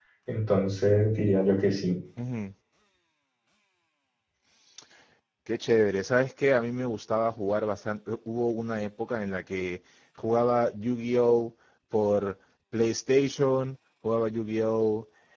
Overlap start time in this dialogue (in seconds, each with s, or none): none